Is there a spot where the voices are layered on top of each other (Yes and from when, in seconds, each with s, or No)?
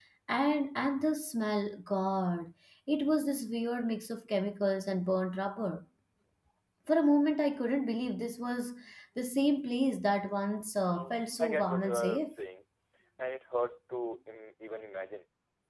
Yes, from 10.9 s